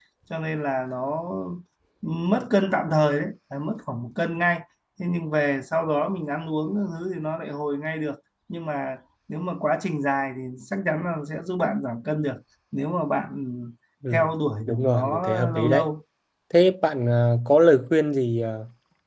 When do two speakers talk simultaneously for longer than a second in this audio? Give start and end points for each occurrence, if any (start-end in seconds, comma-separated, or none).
14.7-15.9